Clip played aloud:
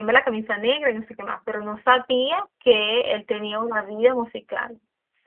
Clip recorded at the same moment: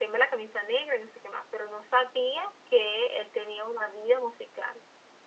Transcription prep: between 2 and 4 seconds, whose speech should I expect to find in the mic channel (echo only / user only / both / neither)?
echo only